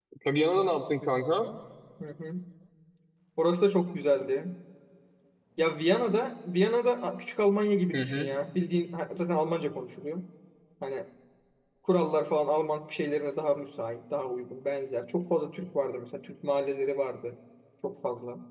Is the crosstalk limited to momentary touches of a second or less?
Yes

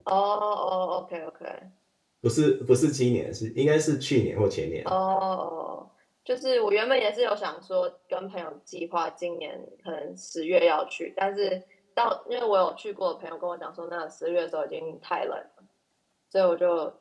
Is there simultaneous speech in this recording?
No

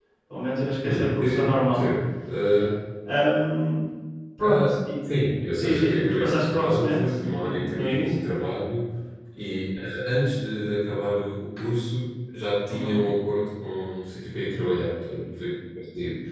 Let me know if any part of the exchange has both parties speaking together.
Yes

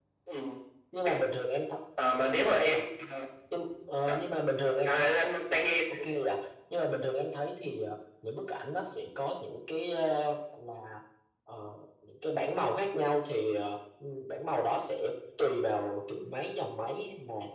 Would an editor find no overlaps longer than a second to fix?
Yes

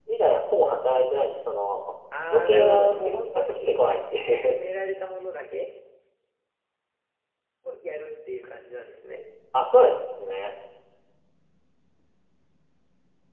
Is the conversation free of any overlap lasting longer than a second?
No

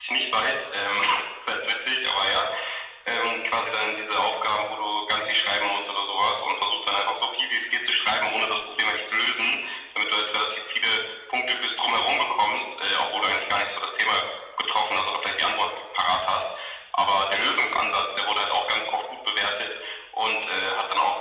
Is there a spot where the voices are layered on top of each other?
No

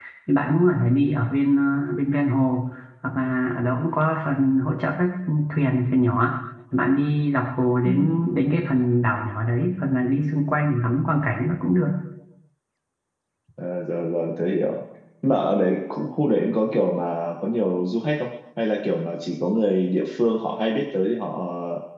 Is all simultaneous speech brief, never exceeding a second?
Yes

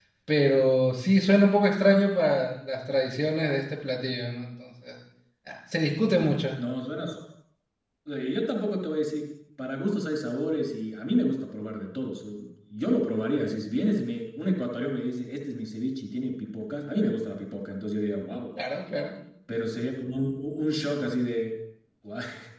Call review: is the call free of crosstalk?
Yes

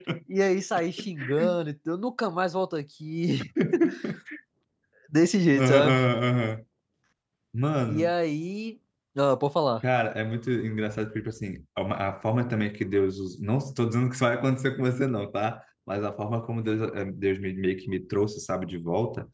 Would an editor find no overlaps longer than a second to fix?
Yes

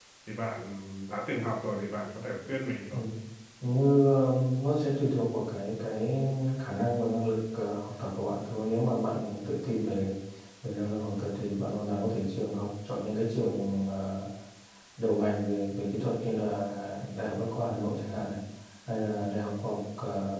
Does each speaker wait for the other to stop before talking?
Yes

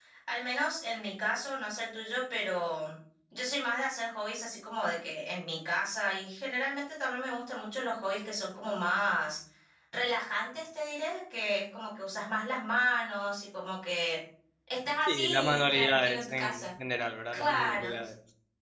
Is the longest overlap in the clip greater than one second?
Yes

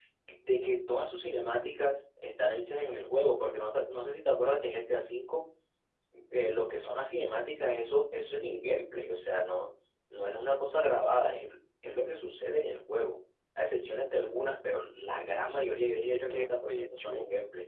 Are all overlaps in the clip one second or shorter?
No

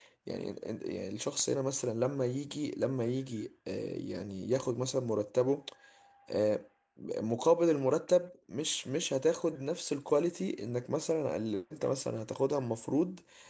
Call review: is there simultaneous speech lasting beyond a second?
No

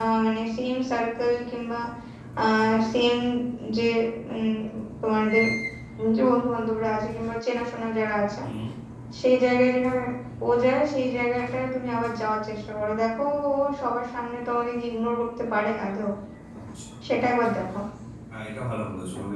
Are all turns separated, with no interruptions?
Yes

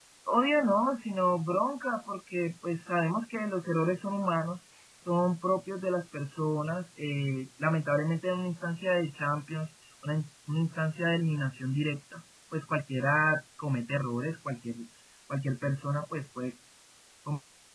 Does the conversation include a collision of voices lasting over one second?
No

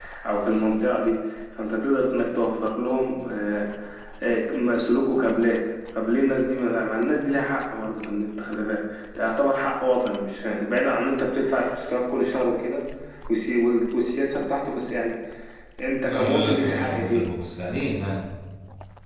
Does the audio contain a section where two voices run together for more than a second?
Yes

